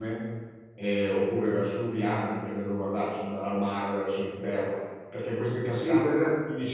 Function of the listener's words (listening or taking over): taking over